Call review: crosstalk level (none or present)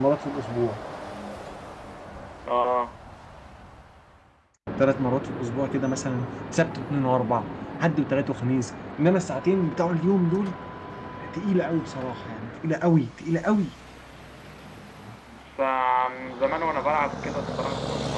none